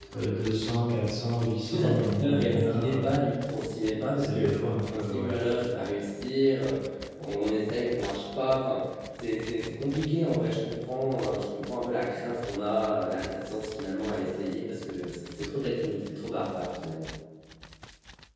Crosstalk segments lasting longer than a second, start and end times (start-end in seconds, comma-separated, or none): 1.6-3.1